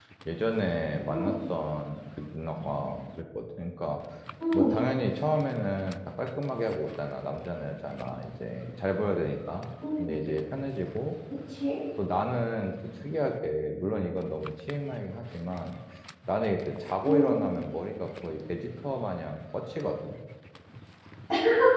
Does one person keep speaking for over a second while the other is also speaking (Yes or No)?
No